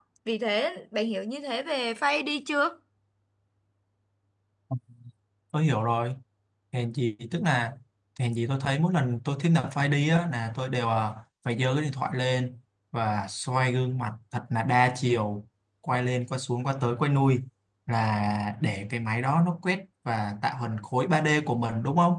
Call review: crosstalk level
none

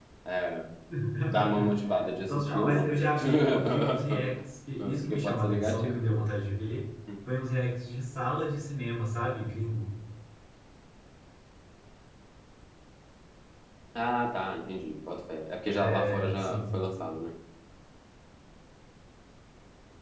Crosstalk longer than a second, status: present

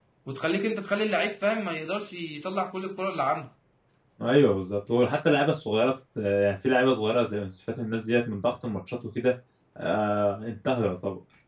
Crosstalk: none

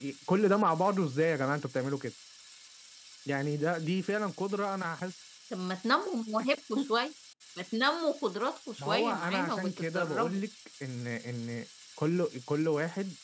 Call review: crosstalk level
present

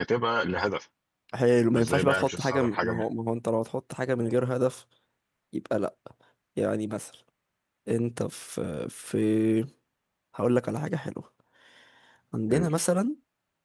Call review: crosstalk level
present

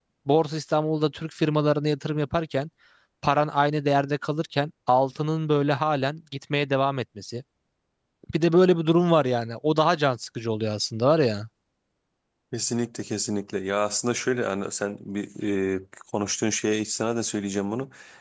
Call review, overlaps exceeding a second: none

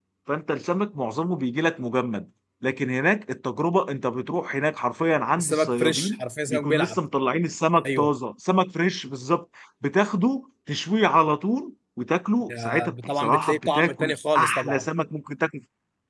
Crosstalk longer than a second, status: present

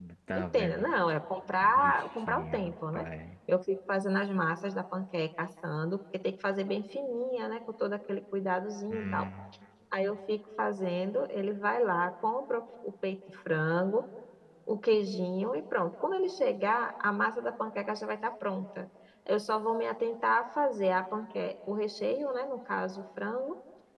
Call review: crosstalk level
present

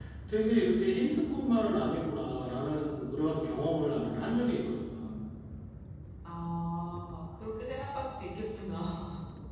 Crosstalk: none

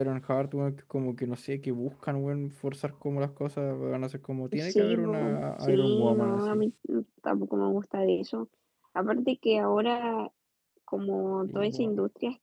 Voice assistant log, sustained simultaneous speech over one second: present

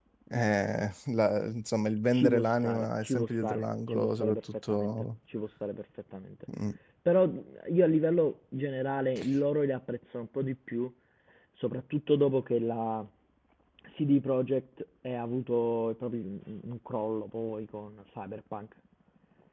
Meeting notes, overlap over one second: present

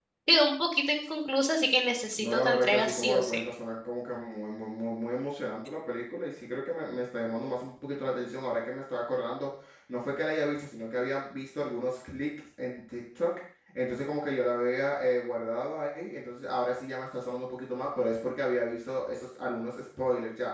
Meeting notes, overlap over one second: present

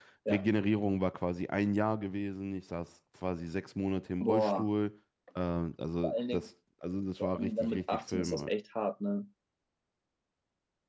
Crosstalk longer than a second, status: present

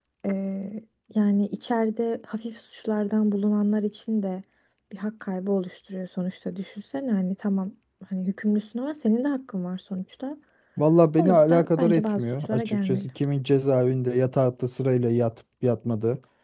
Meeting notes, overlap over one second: present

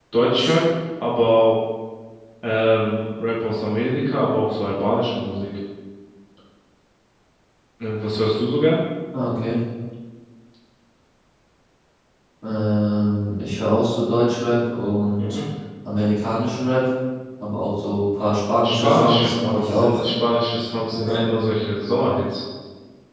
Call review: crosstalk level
present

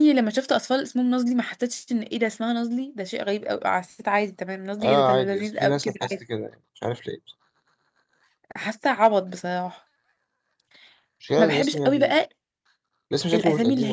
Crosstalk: present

